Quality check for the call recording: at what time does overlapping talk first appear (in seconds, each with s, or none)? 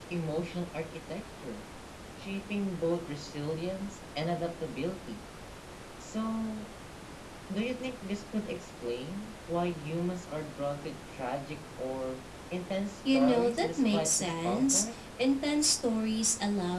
13.1 s